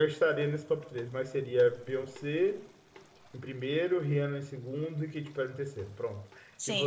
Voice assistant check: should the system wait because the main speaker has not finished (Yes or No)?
No